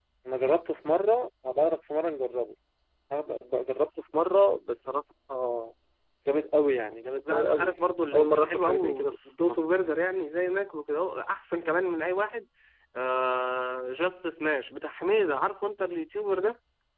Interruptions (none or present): present